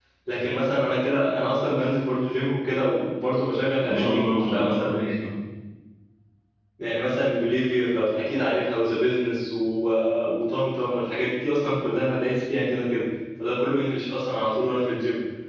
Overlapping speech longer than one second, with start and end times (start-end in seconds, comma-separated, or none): 3.8-5.1